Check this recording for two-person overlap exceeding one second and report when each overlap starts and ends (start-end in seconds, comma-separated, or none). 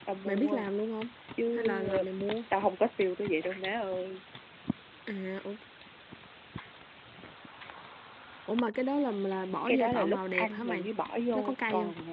9.7-10.9